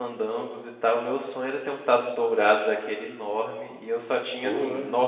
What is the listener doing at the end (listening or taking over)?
listening